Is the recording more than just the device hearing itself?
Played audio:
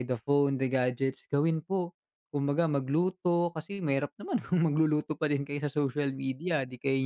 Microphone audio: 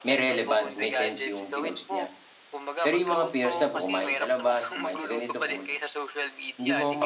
Yes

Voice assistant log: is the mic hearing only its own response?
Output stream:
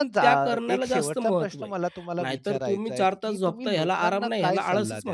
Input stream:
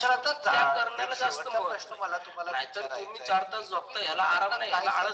Yes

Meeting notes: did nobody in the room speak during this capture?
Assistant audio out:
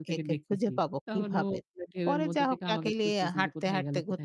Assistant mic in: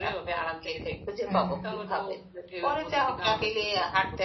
No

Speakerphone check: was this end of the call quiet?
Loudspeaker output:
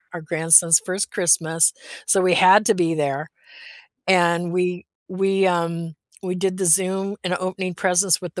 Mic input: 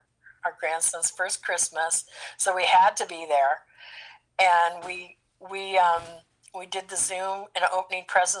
Yes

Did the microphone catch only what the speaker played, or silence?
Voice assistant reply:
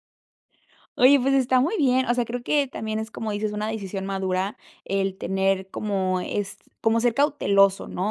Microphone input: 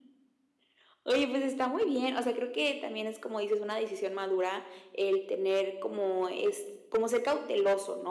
Yes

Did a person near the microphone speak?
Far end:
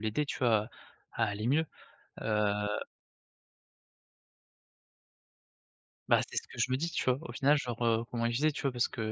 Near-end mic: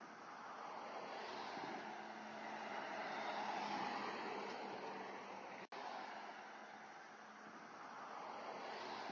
No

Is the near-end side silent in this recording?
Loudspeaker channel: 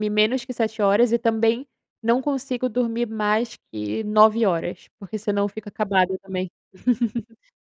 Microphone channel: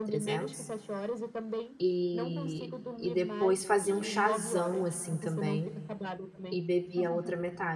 No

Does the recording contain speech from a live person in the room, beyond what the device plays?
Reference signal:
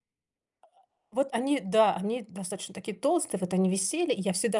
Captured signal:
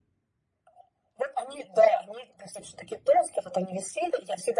No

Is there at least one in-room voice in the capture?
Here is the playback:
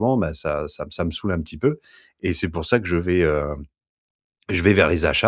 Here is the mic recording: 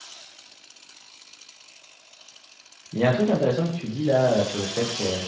Yes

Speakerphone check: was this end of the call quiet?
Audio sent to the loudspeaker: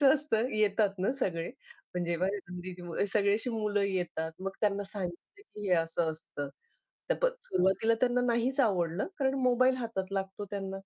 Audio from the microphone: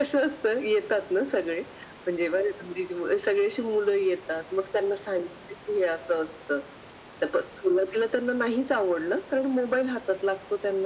Yes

